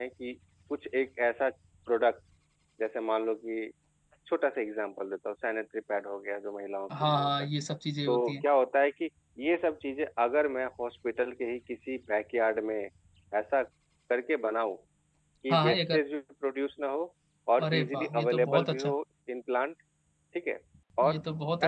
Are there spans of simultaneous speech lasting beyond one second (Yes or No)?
Yes